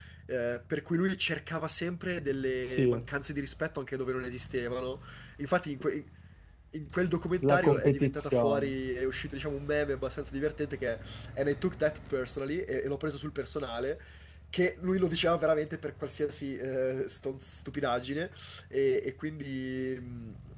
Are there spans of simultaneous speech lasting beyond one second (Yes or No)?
Yes